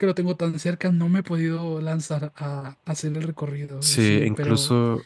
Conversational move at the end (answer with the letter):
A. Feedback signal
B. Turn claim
B